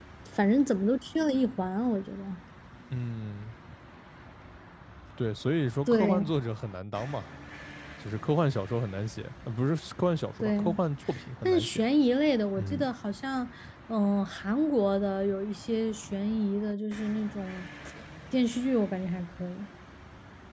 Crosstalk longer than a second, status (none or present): none